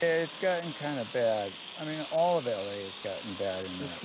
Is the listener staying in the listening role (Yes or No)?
No